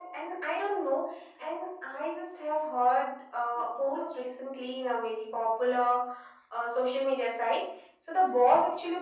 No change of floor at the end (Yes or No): Yes